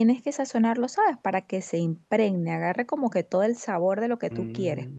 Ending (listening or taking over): taking over